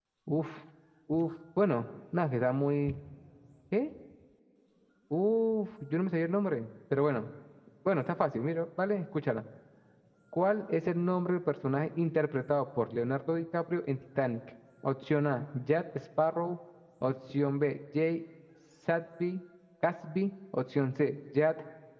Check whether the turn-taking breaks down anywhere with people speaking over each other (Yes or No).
No